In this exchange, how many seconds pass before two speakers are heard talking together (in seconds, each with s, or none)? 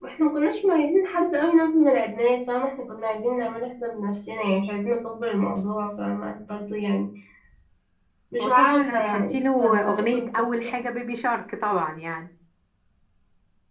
8.4 s